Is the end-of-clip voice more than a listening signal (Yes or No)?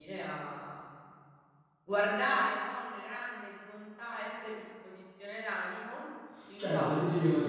Yes